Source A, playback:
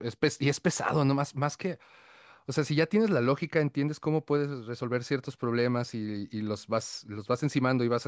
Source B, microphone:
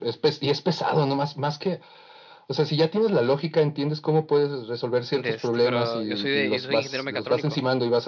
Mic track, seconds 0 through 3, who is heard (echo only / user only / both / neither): echo only